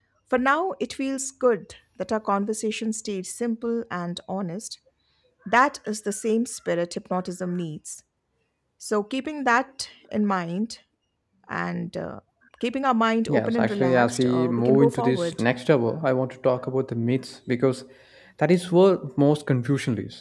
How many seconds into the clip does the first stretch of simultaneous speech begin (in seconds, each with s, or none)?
13.3 s